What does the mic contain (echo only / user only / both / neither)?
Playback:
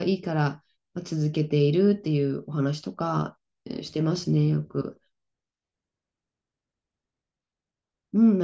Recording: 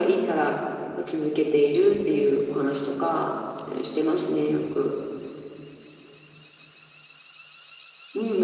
echo only